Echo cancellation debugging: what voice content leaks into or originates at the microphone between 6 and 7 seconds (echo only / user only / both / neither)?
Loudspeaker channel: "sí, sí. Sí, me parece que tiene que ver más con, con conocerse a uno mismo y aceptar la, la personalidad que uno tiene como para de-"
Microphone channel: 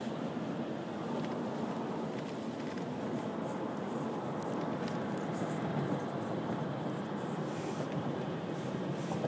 neither